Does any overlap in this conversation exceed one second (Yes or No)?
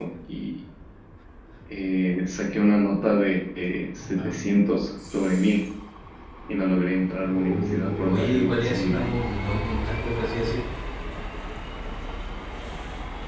Yes